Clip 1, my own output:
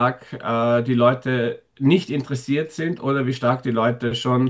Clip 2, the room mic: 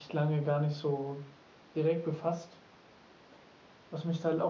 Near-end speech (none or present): present